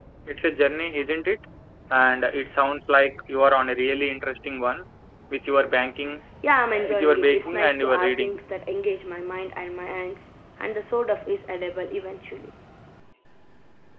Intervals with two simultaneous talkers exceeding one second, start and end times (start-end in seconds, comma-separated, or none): 6.9-8.4